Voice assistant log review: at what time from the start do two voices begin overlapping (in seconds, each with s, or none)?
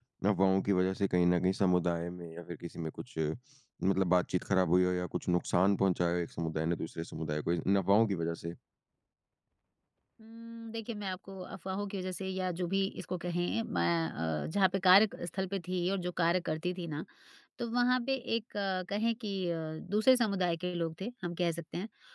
none